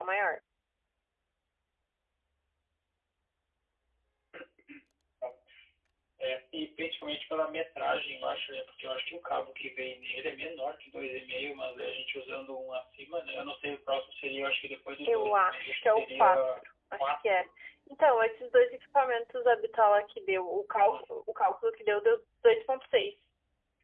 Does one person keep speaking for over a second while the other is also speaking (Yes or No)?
Yes